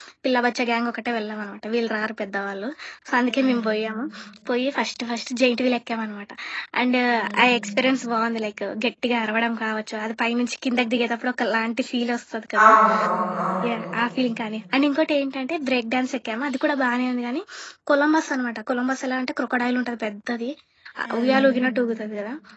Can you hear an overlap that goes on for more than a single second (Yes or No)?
No